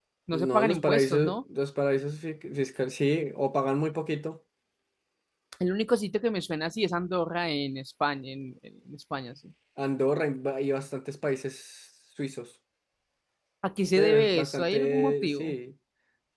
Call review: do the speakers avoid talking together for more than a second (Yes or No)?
No